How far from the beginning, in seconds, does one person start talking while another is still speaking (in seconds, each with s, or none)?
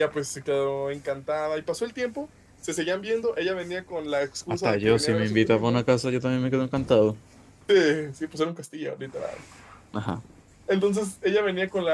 4.5 s